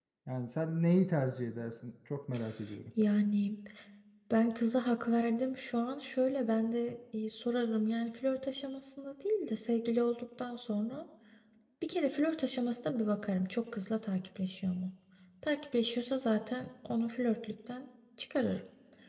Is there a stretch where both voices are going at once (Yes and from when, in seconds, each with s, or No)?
No